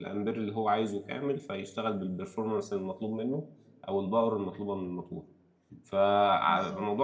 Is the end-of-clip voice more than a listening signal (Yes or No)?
No